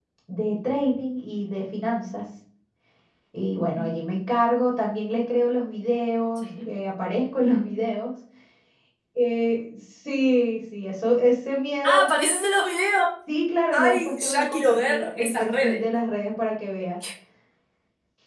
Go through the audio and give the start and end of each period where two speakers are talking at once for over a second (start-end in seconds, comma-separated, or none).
13.7-15.8